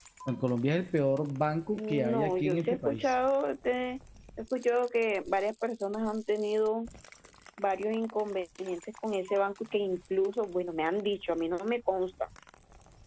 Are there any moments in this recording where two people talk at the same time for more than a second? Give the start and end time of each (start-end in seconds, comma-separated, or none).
1.8-3.1